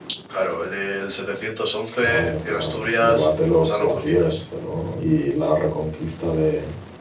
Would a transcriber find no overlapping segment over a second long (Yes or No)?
No